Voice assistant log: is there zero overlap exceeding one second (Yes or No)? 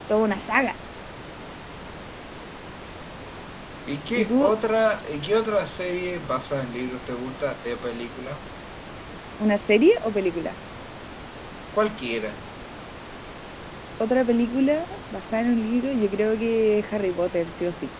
Yes